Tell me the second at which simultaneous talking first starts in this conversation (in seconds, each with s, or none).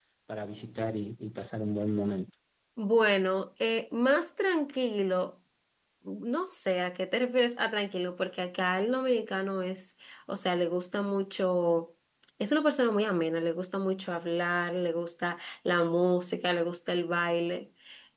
none